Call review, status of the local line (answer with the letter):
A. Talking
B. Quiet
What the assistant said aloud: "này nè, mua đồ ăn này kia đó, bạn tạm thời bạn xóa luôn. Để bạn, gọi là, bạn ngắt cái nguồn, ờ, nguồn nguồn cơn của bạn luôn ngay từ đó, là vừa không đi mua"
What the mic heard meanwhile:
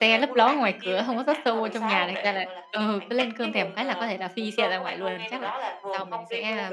A